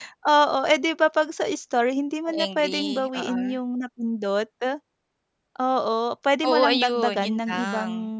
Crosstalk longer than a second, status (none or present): present